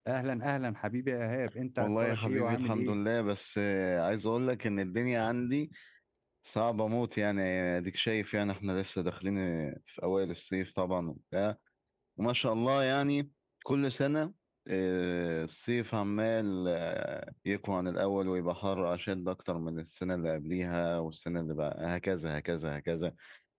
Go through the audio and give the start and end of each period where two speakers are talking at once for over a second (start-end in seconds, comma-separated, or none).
1.8-3.0